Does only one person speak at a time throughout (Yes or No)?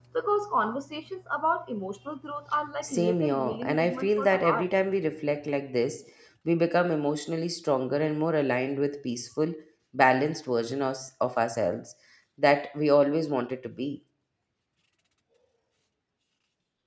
No